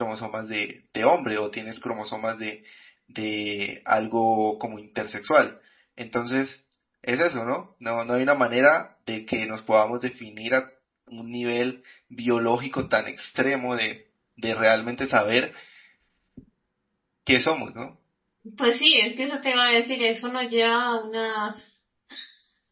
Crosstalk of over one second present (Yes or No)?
No